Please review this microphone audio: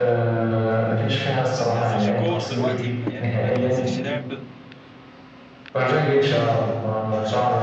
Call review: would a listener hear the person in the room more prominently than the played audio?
No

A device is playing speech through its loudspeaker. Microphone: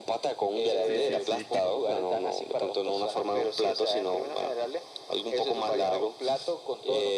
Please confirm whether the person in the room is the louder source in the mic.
No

